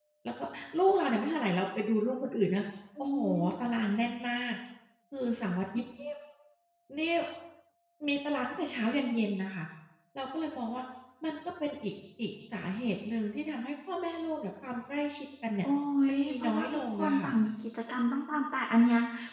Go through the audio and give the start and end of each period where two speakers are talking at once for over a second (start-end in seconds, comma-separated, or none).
16.1-17.3